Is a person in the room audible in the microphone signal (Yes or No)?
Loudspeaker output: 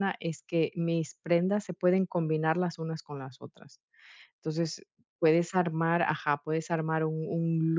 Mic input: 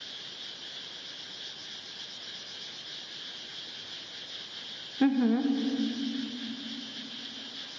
Yes